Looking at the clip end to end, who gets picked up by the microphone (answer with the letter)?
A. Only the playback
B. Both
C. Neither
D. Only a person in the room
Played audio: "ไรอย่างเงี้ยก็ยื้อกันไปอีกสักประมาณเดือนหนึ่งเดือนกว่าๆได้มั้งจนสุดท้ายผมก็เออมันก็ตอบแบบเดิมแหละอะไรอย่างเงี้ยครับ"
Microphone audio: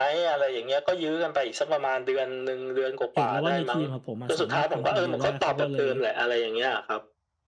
B